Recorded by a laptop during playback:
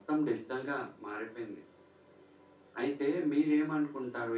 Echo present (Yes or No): Yes